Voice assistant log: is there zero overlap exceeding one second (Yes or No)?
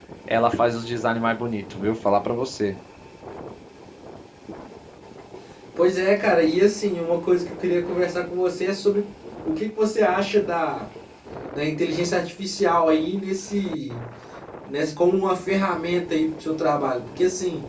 Yes